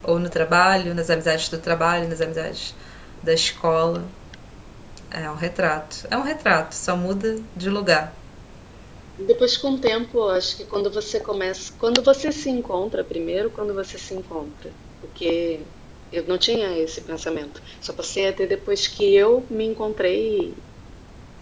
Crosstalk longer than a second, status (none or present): none